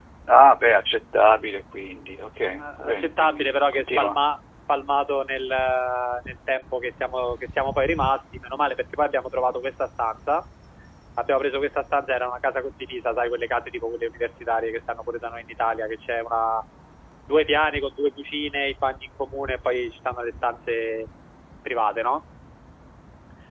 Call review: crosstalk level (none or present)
present